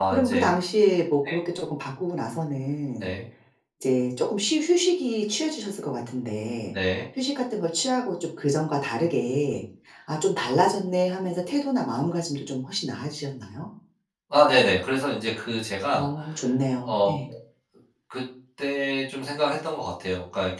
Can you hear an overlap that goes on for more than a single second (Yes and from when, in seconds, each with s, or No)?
No